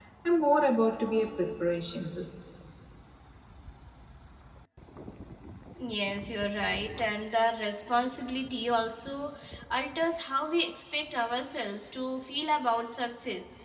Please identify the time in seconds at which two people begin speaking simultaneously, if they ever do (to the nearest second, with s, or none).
none